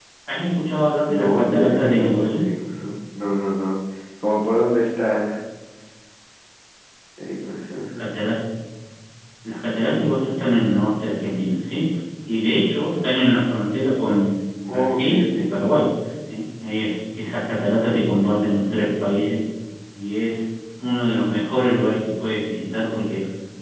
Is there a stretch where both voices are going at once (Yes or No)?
Yes